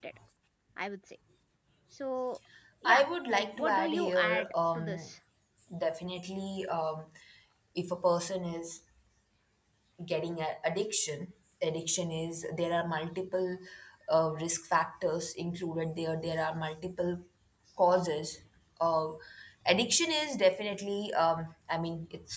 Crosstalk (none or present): present